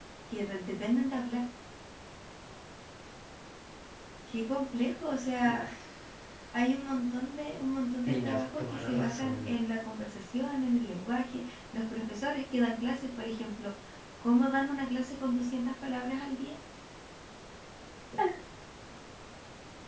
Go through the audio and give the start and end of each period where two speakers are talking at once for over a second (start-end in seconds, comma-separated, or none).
8.0-9.5